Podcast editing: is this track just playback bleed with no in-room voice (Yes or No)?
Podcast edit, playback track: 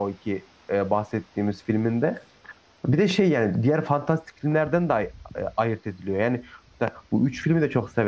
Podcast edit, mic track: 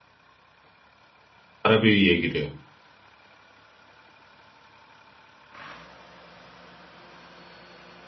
No